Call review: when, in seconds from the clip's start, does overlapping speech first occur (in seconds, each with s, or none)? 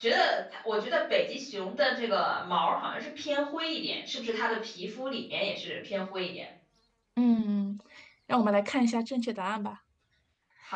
none